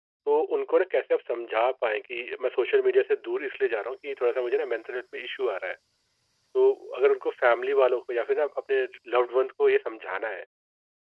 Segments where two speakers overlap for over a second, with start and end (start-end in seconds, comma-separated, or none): none